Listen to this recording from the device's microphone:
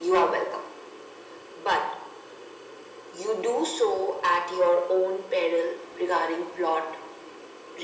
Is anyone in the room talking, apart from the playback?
No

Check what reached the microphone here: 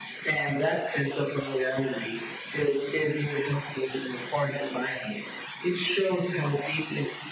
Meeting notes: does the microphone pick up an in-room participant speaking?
No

